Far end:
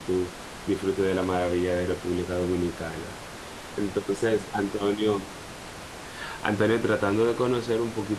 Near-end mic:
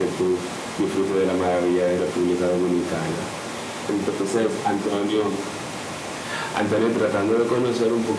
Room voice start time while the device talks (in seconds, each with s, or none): none